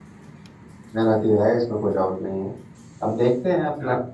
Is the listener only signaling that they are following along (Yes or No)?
Yes